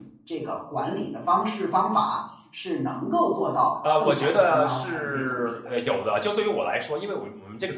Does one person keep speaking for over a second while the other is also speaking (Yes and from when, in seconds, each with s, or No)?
Yes, from 3.8 s